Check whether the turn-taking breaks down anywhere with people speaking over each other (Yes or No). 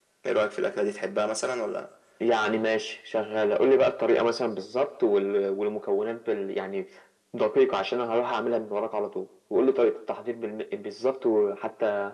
No